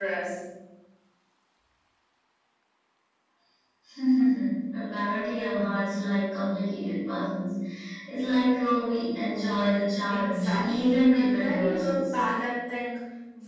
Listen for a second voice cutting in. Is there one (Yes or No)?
Yes